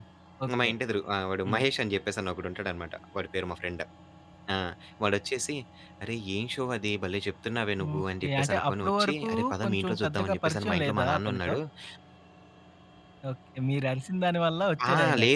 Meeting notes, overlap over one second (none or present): present